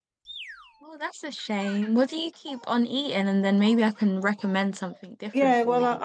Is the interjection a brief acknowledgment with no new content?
No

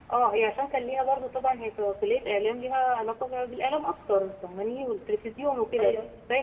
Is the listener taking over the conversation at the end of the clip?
No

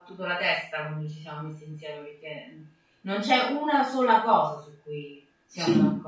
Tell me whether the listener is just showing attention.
No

